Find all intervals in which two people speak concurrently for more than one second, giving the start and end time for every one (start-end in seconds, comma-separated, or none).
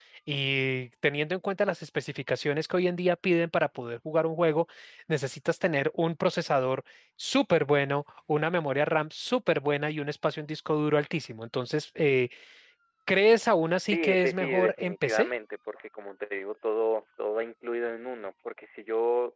13.9-15.3